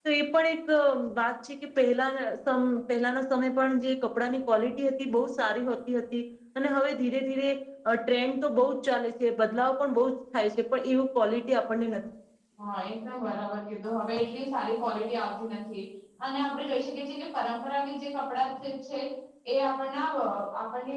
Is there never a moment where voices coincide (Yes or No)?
Yes